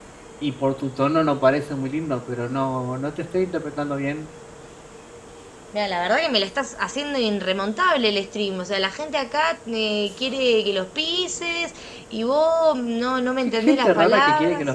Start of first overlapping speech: 13.4 s

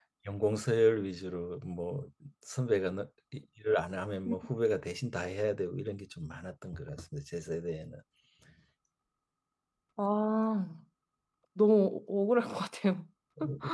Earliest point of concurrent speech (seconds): none

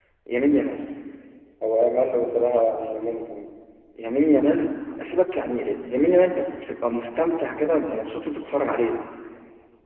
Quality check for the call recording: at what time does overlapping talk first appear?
none

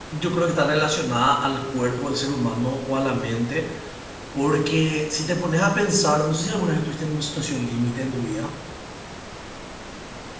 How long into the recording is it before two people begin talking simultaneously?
none

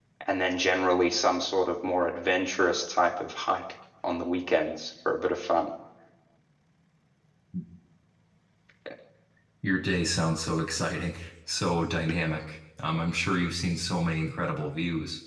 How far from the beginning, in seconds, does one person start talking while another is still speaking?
none

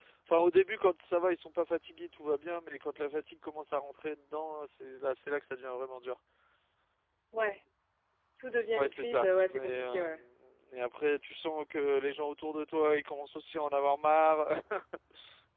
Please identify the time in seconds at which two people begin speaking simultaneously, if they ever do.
8.7 s

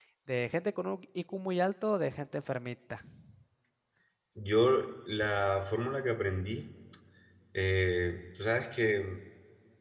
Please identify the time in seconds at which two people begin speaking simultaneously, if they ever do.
none

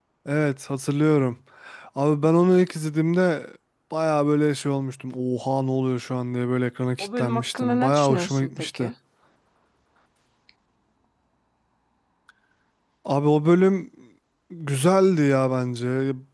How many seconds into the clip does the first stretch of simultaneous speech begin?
7.0 s

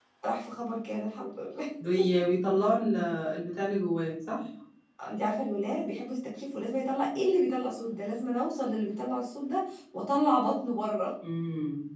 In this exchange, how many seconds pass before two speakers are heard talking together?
none

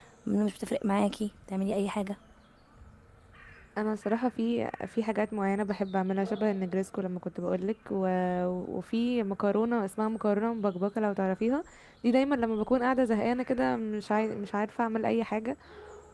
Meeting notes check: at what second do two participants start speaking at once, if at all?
none

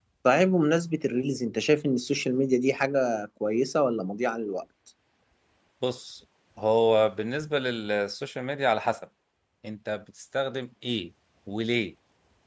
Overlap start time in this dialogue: none

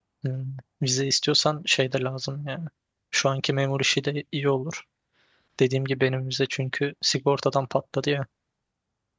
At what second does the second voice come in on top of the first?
none

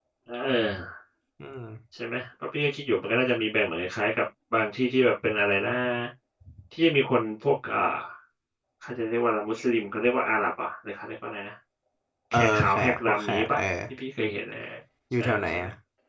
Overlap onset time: 12.3 s

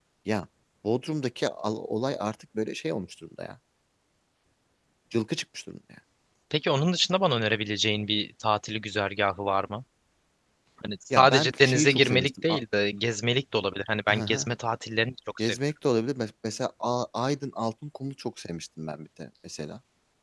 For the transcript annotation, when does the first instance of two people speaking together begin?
11.1 s

